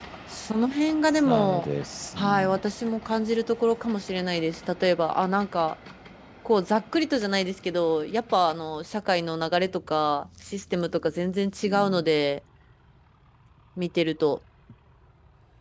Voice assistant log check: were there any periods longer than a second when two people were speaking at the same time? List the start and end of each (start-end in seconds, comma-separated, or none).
none